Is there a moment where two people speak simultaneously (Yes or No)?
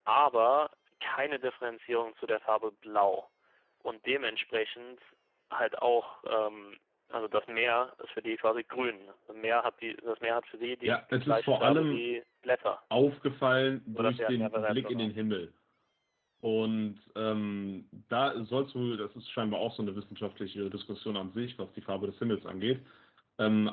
Yes